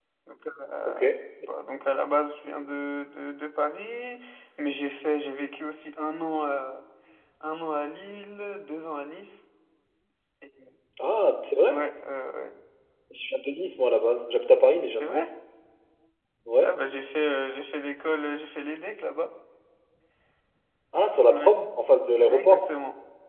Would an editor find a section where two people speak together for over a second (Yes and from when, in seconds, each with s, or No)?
No